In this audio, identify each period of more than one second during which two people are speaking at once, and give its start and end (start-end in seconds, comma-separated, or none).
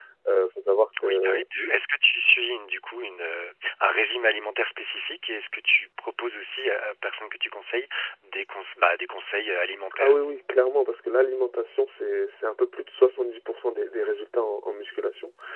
none